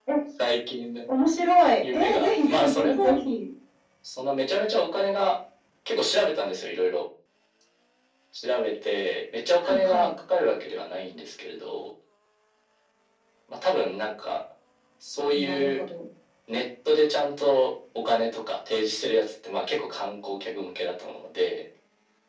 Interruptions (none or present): present